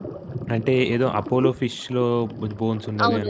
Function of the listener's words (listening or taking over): taking over